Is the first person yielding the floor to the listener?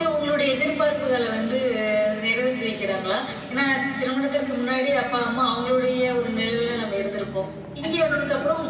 No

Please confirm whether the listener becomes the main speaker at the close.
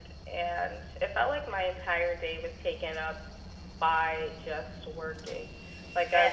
No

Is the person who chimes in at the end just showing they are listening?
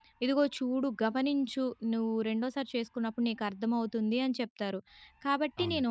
Yes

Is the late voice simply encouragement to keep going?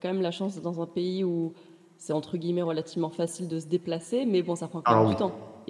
Yes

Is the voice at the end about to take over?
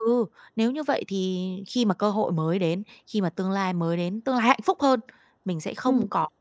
No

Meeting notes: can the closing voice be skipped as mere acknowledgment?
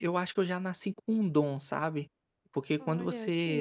Yes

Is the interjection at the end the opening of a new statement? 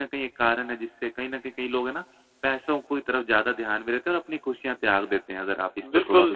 Yes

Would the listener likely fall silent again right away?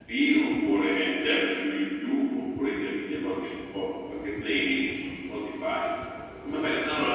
Yes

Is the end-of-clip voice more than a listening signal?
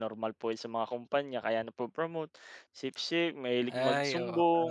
Yes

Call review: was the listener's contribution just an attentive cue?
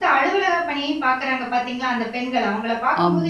Yes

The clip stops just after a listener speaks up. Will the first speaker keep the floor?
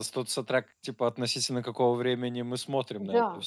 No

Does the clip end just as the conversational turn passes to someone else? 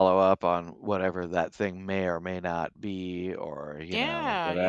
Yes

